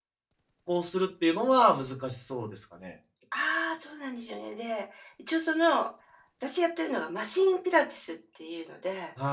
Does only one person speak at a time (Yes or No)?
Yes